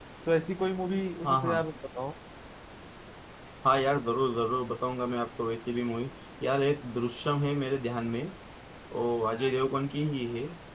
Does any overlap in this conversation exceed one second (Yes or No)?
No